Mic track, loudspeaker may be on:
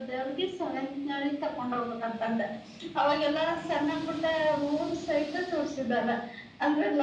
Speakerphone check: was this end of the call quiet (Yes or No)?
Yes